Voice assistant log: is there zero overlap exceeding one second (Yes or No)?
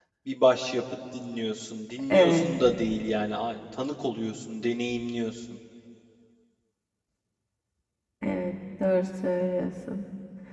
Yes